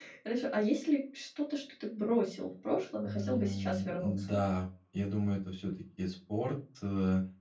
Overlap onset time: 3.0 s

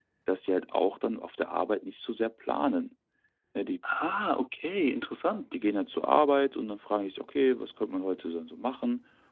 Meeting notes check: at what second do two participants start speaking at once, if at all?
none

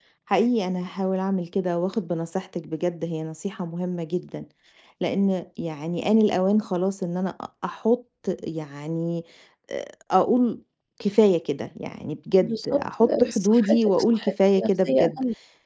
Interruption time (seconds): 12.4 s

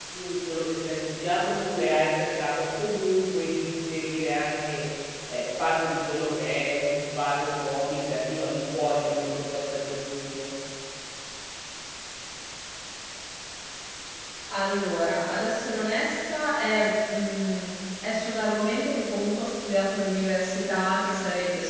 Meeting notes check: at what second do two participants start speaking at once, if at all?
none

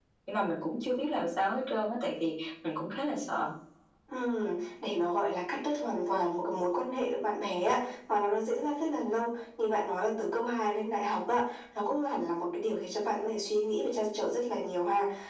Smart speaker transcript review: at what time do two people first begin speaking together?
none

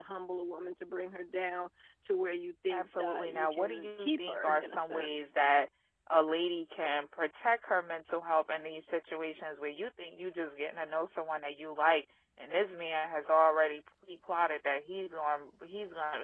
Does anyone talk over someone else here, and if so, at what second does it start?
2.7 s

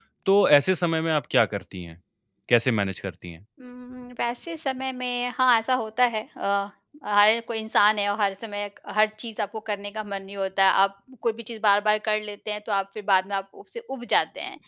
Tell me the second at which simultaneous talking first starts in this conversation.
none

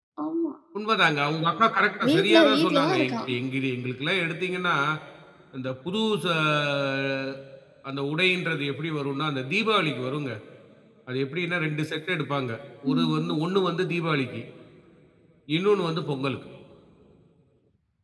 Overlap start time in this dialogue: 2.0 s

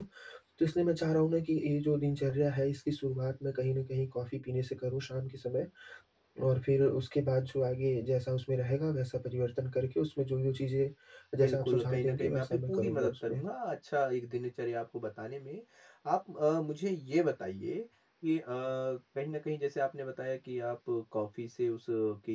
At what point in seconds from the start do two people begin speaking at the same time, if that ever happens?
11.4 s

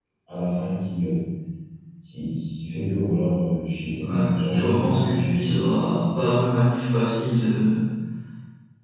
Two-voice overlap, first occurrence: 4.0 s

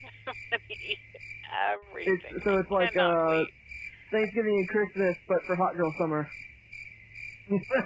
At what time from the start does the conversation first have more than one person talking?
2.1 s

